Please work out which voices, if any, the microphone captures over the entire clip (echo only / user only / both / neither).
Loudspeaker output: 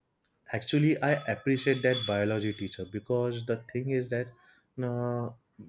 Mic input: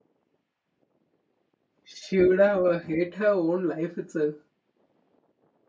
user only